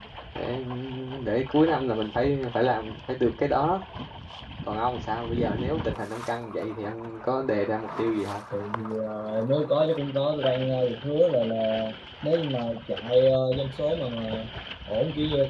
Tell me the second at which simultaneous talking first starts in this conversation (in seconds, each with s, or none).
none